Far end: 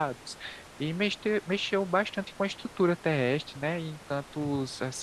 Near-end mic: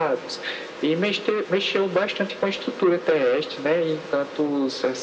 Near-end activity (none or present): none